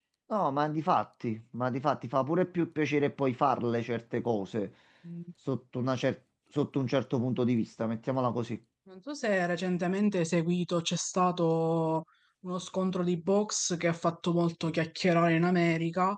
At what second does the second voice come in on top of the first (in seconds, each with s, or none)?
none